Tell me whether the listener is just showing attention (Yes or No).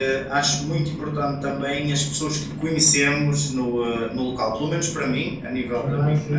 Yes